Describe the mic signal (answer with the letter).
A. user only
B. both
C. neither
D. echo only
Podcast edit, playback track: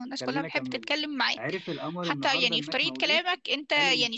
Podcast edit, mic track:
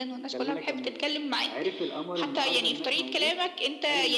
D